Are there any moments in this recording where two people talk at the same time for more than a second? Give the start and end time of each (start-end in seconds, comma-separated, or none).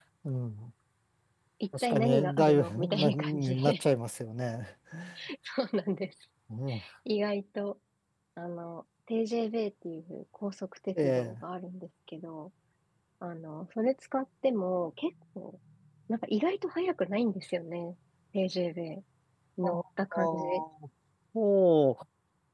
1.8-3.7